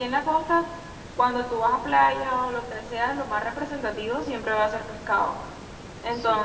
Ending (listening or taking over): listening